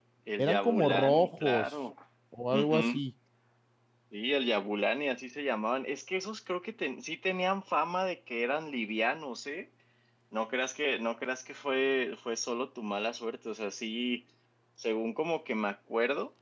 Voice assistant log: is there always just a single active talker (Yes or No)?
No